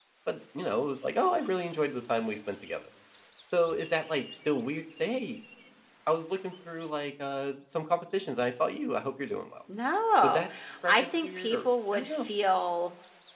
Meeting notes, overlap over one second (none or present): present